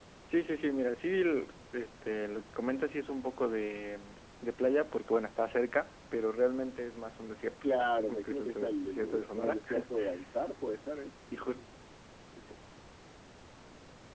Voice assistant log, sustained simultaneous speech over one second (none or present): present